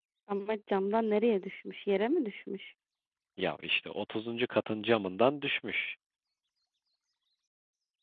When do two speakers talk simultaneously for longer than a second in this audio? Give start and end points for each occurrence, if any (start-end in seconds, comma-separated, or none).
none